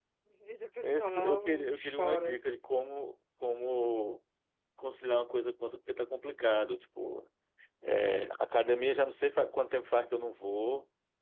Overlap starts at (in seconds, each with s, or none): 0.8 s